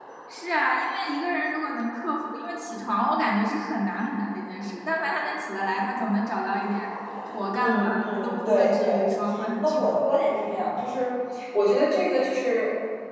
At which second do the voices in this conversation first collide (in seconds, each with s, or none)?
7.5 s